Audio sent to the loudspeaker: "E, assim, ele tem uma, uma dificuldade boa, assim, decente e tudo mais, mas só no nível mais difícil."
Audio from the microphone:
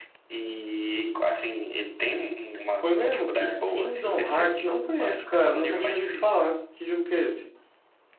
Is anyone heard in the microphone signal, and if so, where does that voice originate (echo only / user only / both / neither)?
both